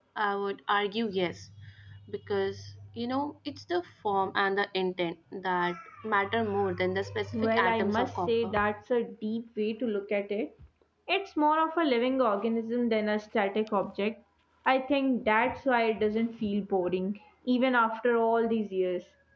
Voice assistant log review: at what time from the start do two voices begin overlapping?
7.3 s

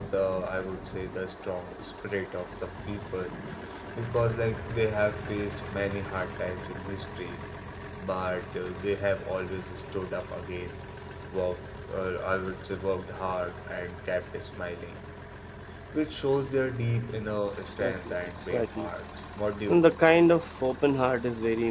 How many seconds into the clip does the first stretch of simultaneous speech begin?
17.7 s

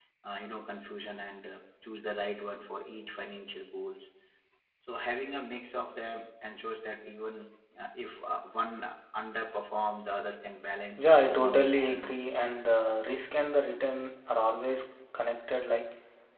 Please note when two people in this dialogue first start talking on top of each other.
11.0 s

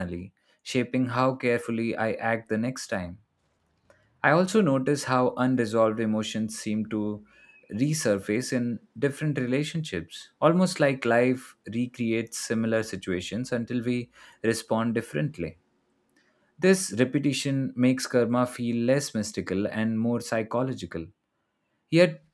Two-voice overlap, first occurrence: none

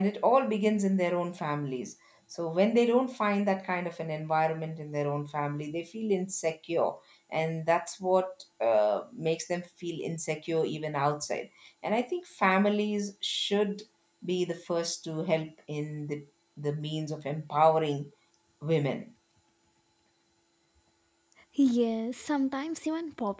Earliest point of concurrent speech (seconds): none

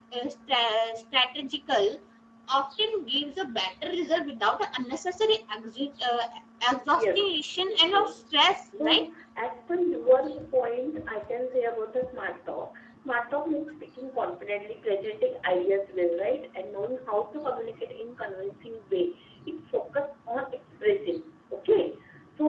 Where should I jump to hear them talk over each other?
7.0 s

